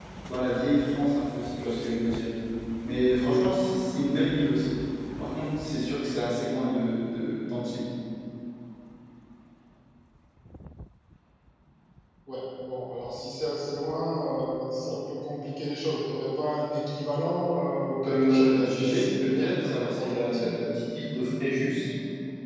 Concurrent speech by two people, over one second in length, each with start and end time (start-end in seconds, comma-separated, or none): 18.1-20.6